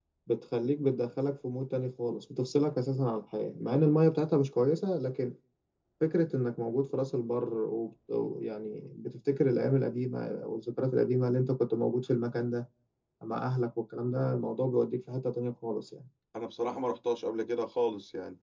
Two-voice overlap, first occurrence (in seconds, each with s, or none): none